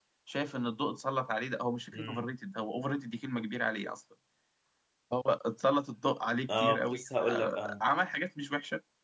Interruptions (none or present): present